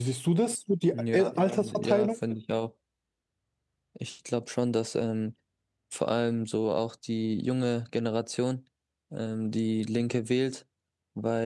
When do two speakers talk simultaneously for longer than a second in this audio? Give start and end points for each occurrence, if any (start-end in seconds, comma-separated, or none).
0.9-2.2